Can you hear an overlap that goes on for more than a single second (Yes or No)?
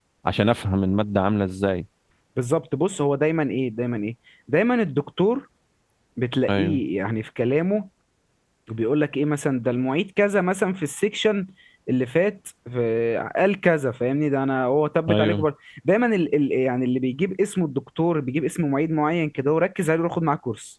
No